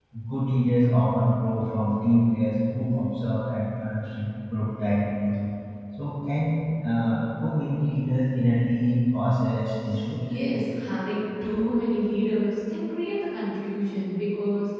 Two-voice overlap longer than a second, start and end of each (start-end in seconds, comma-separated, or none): none